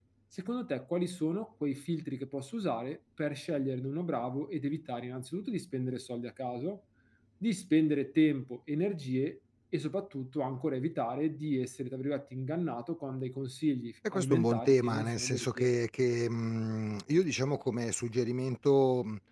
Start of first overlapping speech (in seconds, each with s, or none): 14.0 s